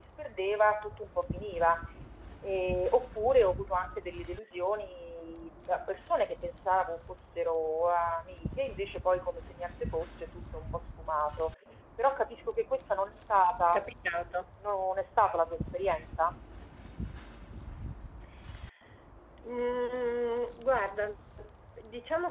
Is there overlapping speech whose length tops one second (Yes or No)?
No